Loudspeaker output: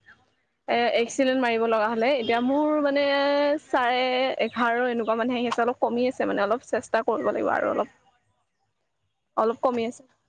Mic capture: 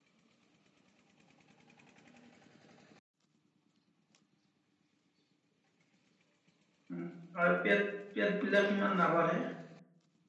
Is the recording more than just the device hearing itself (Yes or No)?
Yes